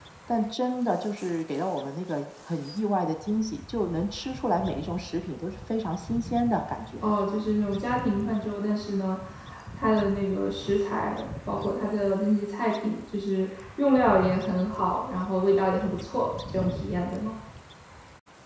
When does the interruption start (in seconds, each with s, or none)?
none